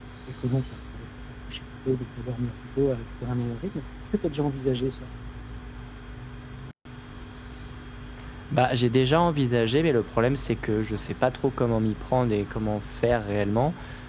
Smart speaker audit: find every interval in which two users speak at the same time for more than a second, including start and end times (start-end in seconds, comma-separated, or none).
none